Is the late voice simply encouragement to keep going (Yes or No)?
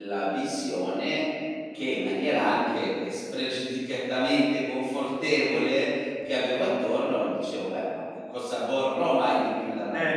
No